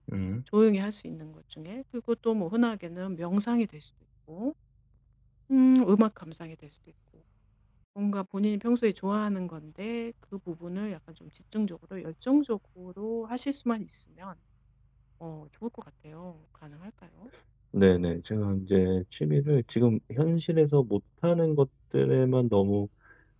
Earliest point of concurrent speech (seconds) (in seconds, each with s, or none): none